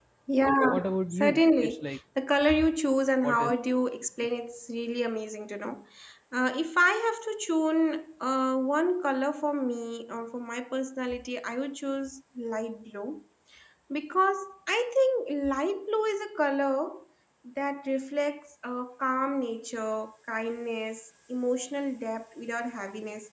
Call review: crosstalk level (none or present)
present